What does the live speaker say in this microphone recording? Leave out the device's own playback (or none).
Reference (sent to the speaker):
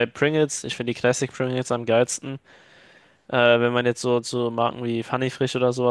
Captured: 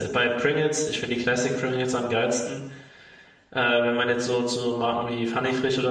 none